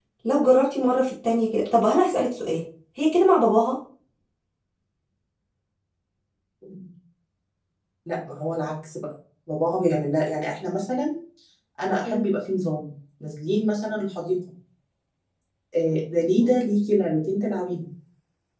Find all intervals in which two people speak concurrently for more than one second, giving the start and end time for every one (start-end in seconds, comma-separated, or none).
none